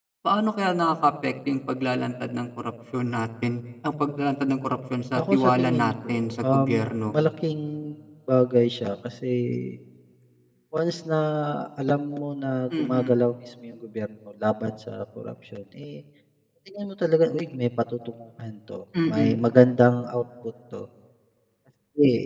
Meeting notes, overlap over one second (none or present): present